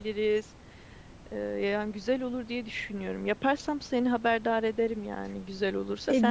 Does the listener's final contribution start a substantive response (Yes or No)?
Yes